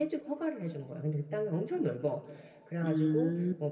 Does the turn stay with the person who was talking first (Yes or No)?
Yes